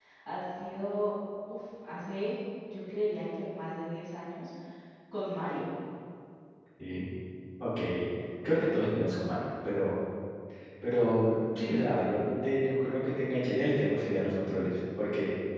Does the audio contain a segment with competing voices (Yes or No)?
No